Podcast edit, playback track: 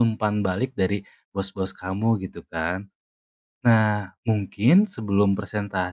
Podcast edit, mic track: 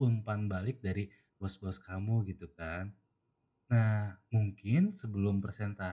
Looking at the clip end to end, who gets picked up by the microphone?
echo only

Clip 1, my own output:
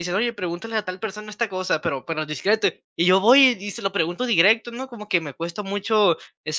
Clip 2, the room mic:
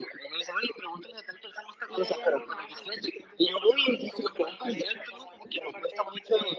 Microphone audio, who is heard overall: both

